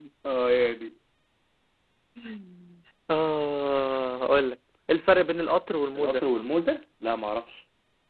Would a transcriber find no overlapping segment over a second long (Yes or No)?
Yes